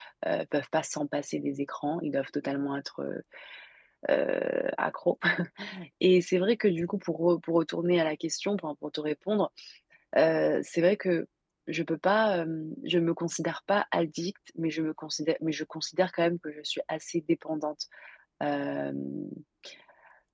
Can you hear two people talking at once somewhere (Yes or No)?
No